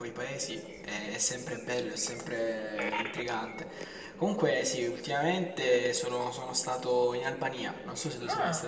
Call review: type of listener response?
taking over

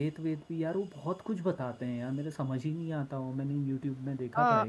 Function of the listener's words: taking over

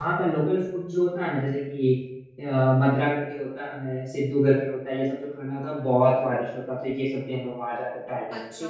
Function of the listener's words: taking over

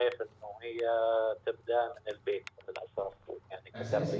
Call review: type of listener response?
taking over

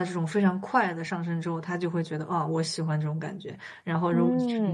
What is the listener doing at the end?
taking over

